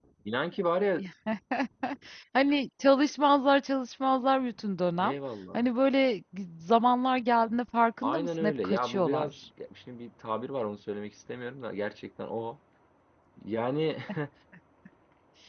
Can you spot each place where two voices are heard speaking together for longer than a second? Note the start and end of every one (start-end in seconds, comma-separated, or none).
8.0-9.4